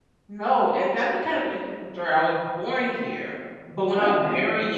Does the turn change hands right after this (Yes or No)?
No